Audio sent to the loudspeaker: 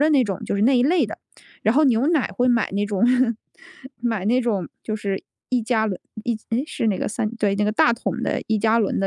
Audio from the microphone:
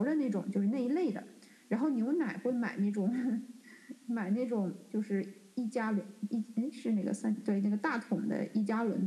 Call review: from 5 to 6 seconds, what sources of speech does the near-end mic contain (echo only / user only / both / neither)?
echo only